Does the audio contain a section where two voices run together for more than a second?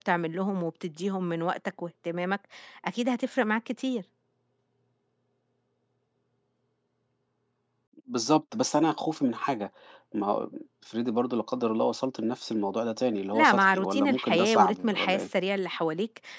Yes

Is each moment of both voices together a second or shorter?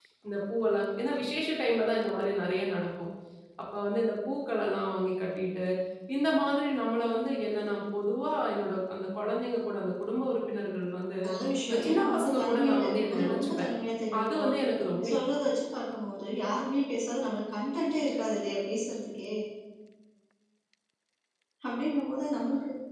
No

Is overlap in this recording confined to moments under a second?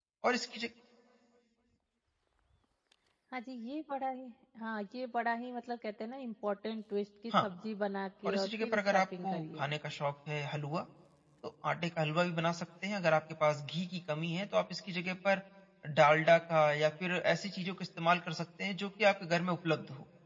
No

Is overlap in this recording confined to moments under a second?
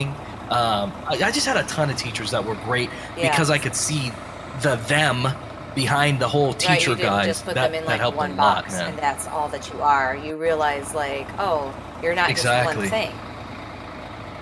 No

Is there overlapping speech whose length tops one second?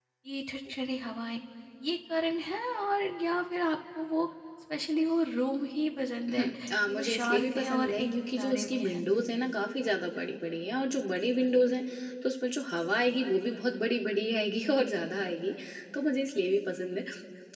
Yes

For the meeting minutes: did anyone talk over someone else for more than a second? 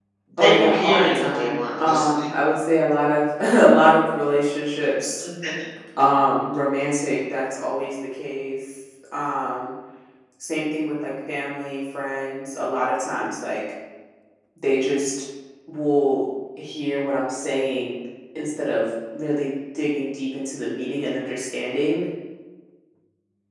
Yes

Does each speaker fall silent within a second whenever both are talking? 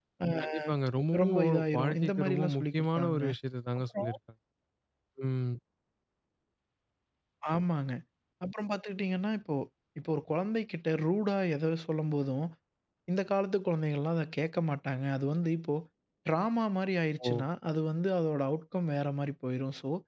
No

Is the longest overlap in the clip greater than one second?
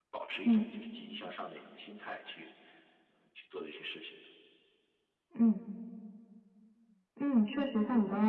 No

